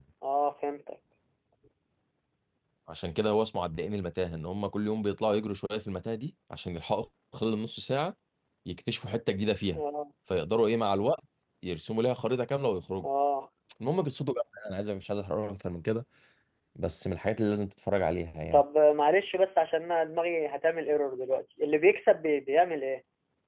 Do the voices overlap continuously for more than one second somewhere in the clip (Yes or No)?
No